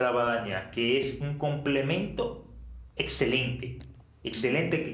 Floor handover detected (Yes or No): No